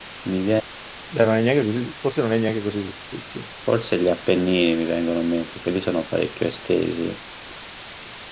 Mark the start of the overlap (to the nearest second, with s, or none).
none